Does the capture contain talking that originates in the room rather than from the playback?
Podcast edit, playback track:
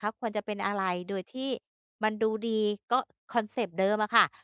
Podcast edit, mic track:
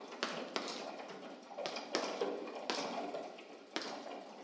No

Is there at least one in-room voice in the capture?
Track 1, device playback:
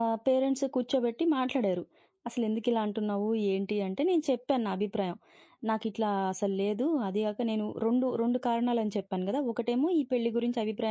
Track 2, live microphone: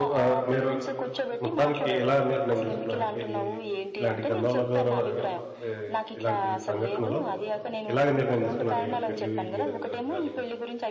Yes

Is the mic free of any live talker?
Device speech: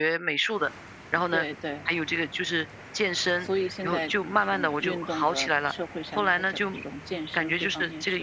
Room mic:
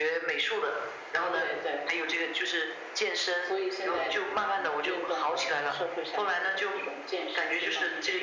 Yes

